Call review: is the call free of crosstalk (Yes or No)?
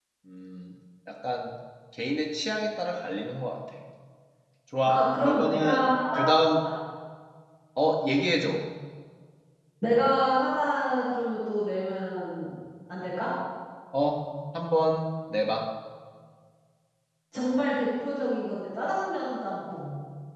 No